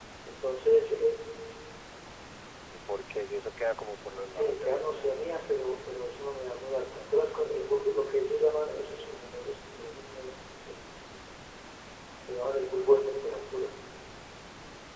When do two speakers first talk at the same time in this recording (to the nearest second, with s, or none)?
4 s